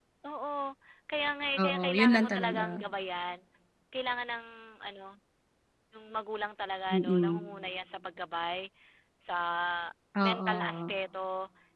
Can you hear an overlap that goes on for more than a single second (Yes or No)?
Yes